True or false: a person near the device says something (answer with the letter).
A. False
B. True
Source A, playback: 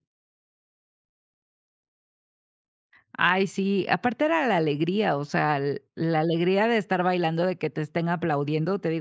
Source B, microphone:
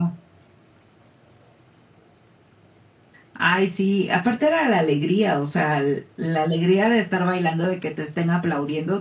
A